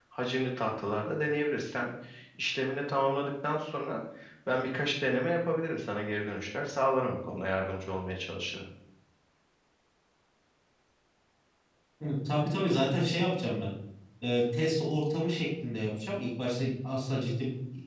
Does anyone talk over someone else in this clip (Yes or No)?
No